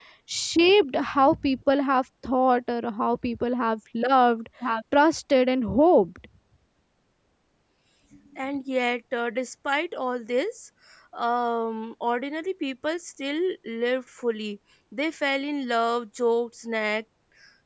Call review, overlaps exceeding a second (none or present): none